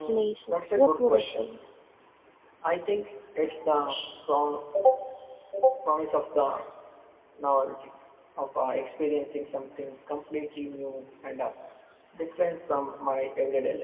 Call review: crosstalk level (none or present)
present